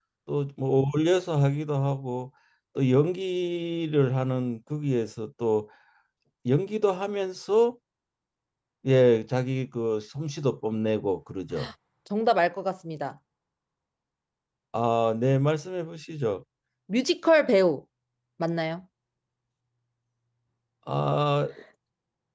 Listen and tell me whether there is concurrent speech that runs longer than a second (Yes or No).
No